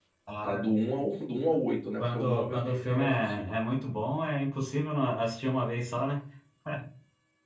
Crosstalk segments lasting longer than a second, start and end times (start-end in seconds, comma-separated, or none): 2.0-3.4